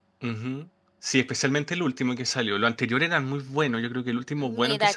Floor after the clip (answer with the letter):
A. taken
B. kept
A